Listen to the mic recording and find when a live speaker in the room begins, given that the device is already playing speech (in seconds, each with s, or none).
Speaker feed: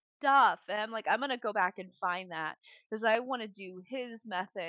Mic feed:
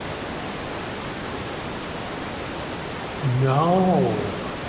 3.2 s